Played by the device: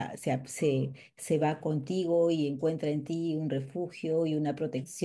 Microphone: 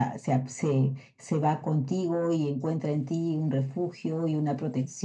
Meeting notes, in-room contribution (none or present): none